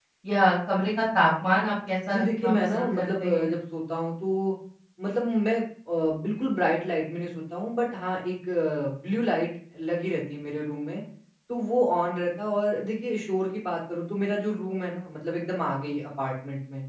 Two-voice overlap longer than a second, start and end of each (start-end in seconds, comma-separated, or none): 2.1-3.5